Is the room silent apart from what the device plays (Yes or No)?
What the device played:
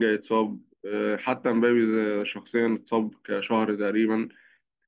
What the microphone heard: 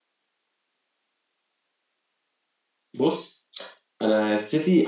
No